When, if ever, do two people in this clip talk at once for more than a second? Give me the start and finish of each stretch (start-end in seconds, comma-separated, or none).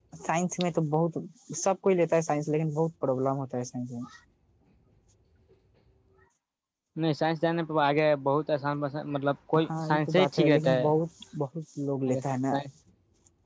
9.6-10.9